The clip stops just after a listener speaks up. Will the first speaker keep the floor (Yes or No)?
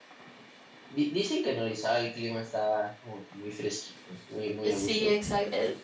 No